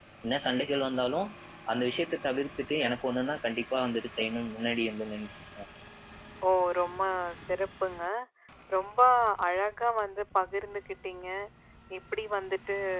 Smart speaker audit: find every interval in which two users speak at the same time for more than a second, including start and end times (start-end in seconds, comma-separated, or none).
none